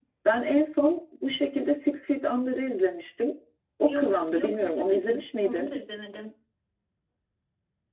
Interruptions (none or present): present